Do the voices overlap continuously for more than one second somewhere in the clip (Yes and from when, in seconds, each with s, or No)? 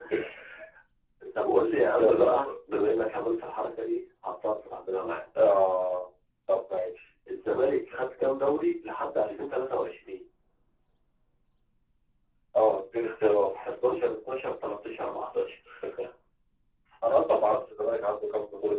No